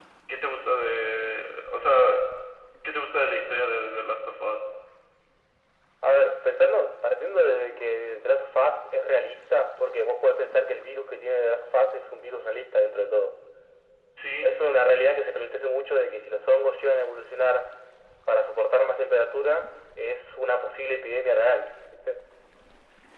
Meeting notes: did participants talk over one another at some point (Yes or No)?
No